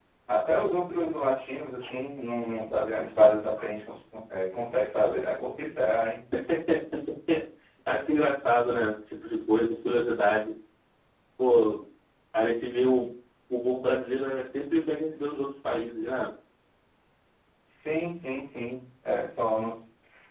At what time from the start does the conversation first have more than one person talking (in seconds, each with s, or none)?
none